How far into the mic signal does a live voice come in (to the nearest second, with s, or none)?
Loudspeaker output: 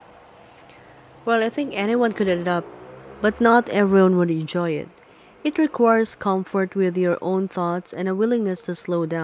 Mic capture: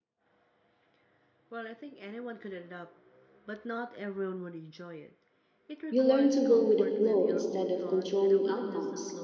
6 s